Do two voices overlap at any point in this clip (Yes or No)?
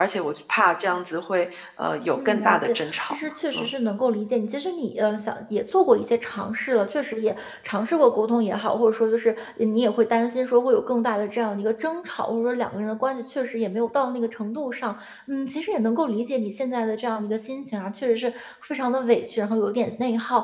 Yes